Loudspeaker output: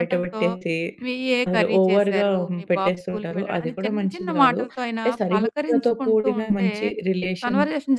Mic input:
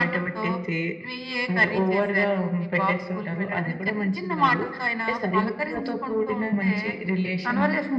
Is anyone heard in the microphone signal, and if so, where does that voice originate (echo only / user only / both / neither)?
echo only